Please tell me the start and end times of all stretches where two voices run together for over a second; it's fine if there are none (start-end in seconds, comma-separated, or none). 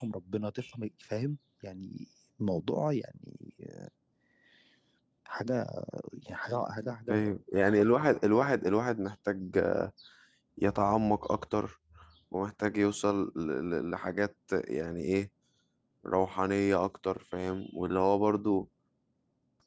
none